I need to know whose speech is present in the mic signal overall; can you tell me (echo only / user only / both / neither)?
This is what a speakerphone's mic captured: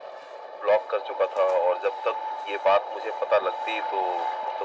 echo only